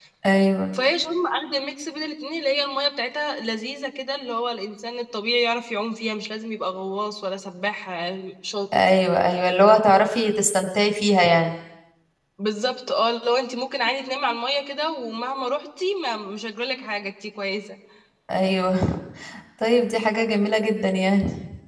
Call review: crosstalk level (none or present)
none